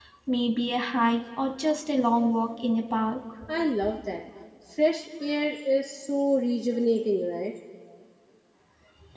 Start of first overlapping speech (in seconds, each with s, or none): none